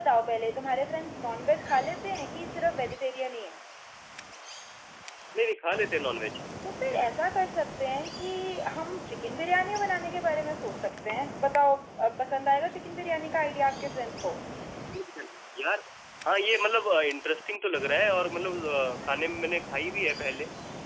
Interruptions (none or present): none